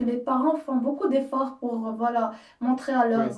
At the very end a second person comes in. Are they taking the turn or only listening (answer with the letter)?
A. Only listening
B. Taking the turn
A